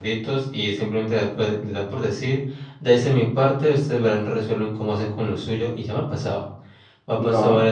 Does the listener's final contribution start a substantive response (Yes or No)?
No